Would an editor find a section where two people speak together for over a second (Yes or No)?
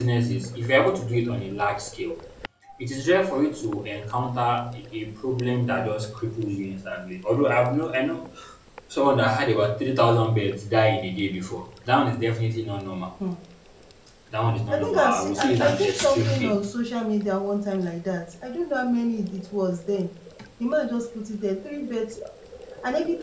Yes